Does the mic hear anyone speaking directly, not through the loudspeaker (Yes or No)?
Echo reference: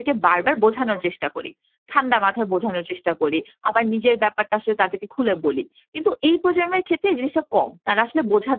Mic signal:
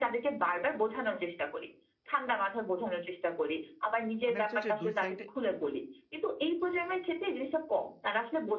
Yes